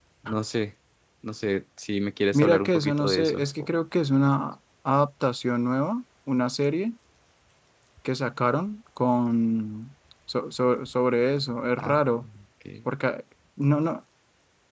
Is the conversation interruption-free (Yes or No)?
No